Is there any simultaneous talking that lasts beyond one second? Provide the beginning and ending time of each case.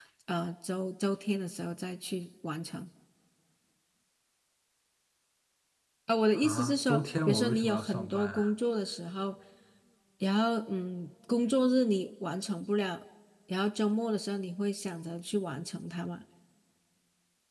6.3-8.5

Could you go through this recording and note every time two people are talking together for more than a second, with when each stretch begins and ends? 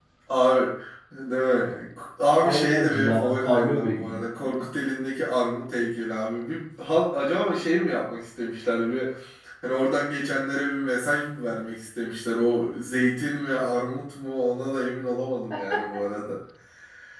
2.4-4.2

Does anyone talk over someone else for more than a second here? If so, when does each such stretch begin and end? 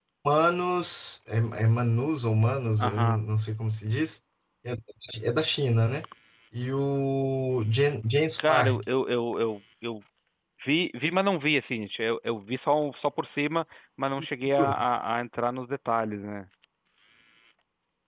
none

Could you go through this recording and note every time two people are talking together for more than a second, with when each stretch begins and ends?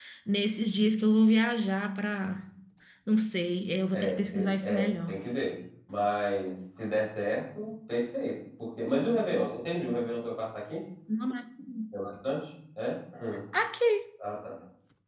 3.9-5.2

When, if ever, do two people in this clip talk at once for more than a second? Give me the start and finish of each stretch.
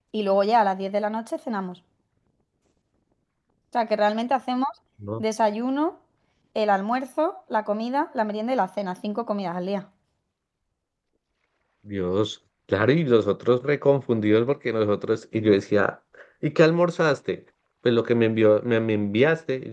none

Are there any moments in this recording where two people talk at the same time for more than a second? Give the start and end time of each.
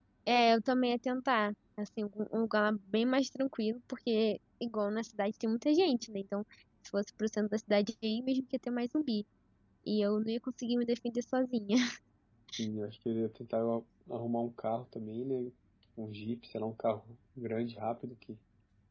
none

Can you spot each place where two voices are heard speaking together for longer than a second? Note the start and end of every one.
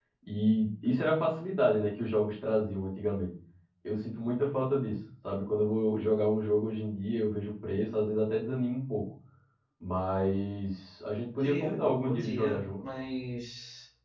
11.4-12.8

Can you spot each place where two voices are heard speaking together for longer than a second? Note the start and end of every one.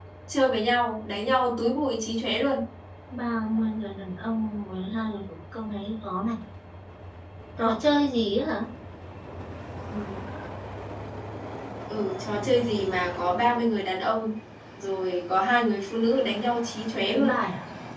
none

